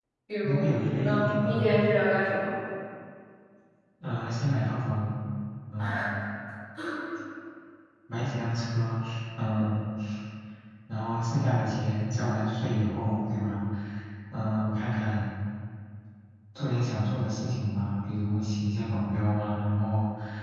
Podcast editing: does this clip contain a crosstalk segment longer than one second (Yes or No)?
Yes